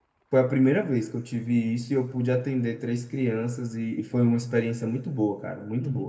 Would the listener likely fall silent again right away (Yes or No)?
No